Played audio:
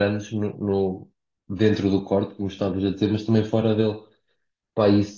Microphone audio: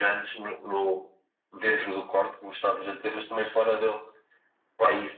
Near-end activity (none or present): none